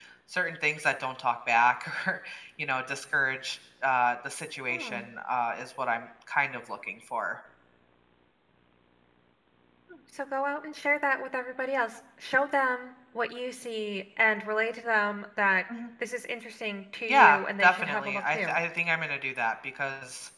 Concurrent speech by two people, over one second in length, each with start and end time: 17.1-18.6

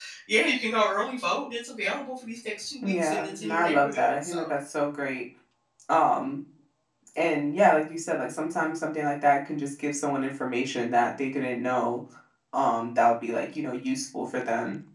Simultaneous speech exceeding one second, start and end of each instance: 2.8-4.5

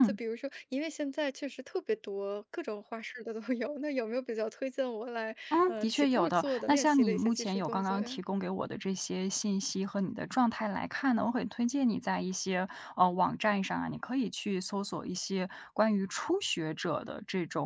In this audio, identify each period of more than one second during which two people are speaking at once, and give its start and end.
5.5-8.2

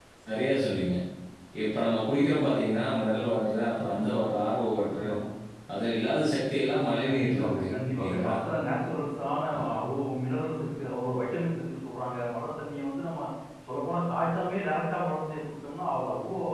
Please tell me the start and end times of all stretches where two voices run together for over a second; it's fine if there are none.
7.0-8.3

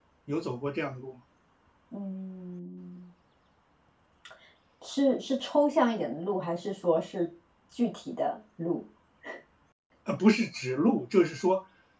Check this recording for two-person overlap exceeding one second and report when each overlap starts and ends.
none

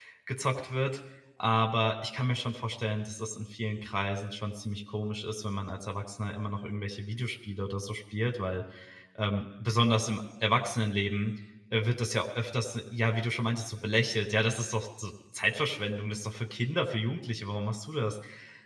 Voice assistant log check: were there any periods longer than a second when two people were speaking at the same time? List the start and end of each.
none

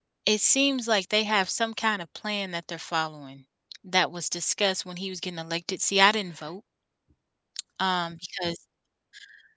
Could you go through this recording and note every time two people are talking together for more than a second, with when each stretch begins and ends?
none

